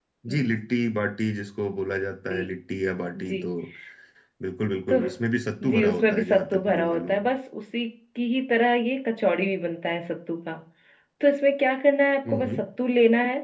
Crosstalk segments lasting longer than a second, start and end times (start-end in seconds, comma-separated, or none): 5.7-7.2